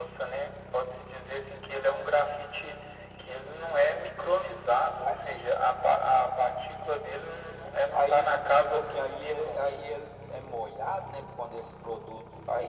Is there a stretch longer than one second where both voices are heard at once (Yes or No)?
Yes